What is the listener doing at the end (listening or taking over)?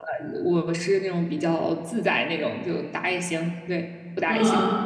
taking over